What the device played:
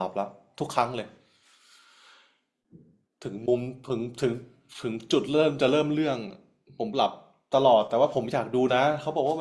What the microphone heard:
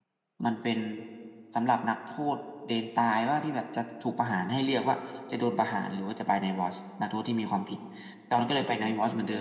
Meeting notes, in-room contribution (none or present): present